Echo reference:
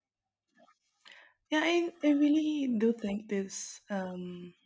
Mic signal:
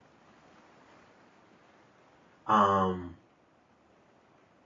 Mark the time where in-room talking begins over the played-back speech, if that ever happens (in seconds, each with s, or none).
2.5 s